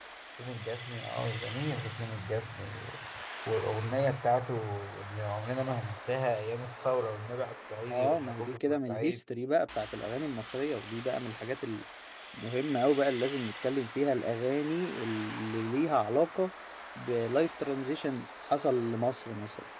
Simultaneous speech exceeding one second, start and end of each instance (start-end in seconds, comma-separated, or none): 7.9-9.2